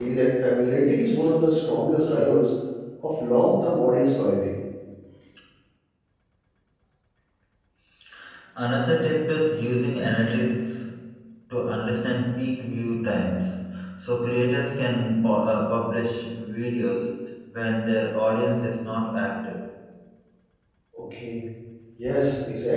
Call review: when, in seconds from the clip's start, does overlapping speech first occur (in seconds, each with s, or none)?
none